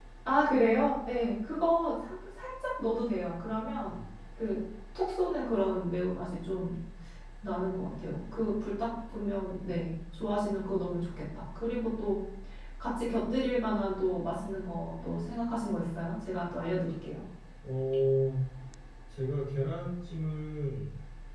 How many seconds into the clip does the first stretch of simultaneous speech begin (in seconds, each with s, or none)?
none